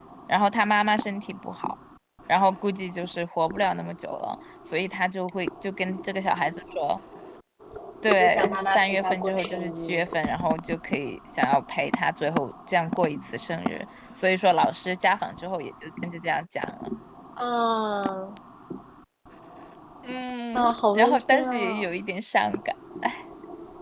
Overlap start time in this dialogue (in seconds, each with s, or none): 8.2 s